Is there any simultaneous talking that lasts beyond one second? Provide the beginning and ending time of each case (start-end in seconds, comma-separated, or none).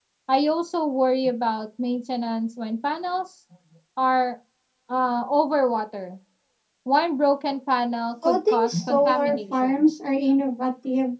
8.2-9.7